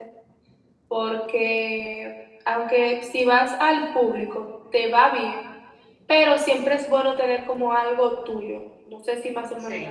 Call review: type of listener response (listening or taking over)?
listening